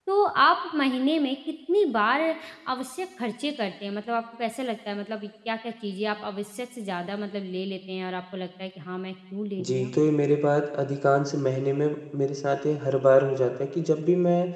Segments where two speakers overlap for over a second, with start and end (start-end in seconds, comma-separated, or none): none